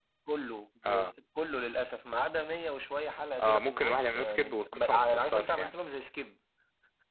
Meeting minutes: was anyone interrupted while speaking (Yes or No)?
Yes